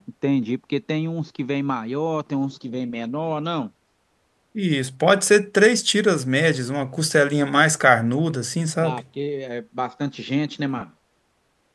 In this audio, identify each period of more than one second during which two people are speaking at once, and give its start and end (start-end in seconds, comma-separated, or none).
none